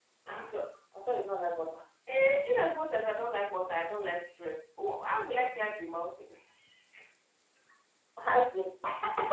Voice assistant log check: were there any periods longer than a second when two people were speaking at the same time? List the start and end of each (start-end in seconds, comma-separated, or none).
none